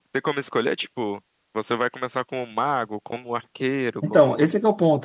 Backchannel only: No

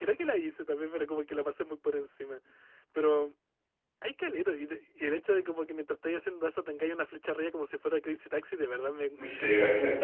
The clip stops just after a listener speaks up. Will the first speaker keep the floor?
No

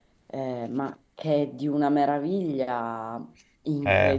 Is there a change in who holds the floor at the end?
No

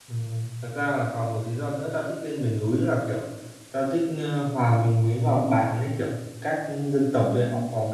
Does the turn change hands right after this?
No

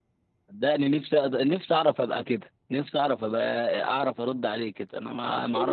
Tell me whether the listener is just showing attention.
No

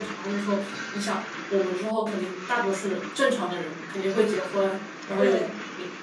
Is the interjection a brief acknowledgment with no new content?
Yes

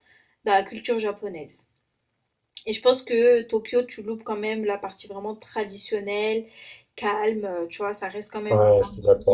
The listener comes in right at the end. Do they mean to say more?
Yes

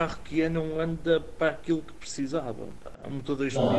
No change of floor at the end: No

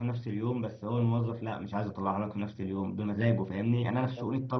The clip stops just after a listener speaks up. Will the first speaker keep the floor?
Yes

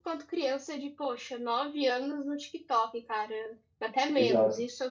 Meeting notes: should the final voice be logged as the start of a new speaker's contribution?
Yes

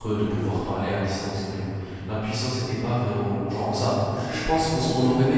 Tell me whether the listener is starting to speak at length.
No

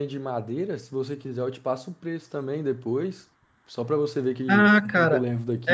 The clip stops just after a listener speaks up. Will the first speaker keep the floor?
No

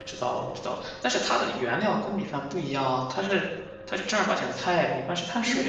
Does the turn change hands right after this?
Yes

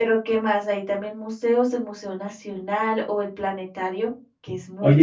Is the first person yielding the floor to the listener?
Yes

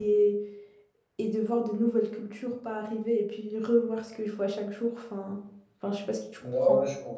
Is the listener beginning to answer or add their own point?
Yes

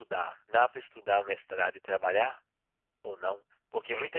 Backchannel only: Yes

